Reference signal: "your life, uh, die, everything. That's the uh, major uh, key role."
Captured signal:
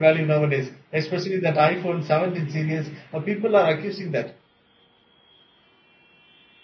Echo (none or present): none